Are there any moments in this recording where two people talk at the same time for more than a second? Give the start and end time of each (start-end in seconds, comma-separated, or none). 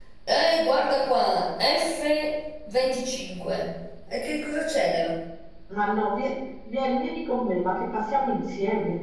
none